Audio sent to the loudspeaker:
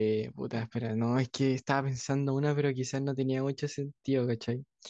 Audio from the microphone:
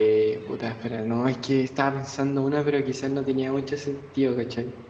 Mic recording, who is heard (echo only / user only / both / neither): echo only